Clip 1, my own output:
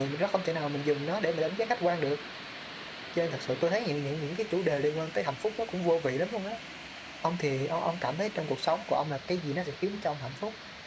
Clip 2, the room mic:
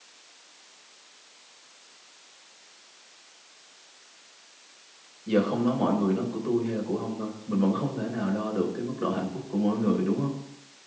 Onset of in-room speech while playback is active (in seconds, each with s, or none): 5.2 s